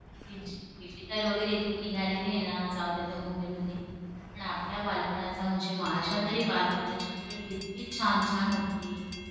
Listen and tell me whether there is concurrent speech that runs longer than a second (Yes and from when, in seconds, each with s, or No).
No